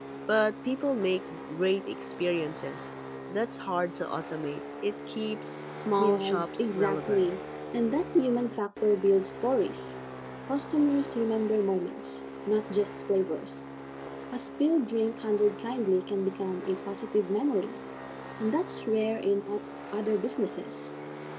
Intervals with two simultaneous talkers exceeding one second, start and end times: 6.0-7.3

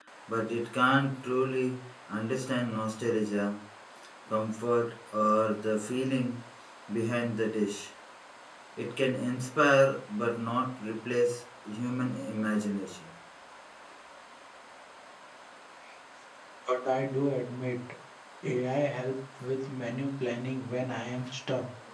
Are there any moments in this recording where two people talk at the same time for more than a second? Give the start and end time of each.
none

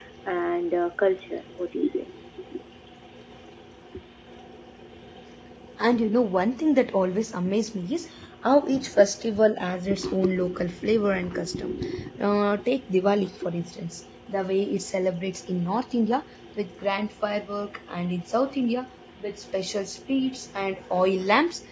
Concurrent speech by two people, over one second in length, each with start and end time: none

